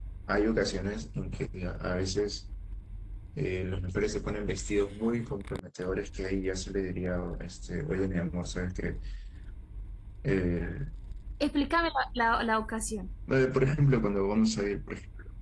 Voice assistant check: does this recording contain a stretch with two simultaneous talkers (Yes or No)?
No